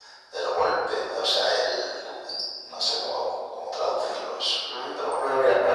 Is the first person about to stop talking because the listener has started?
Yes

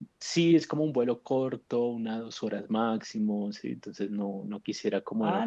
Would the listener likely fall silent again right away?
No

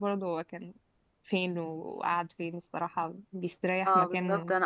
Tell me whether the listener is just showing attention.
No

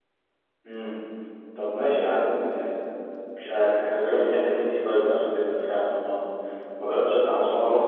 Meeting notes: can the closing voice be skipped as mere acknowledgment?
Yes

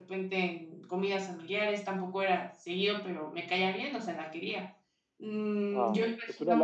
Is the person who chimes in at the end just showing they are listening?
No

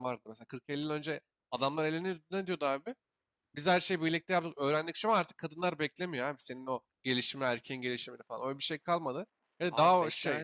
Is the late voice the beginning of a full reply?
Yes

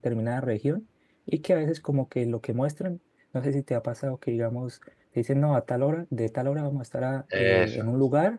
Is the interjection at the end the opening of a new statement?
No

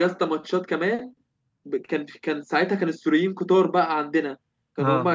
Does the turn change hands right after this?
No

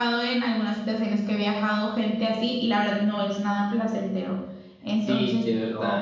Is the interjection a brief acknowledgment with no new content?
No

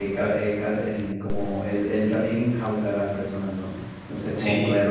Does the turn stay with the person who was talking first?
Yes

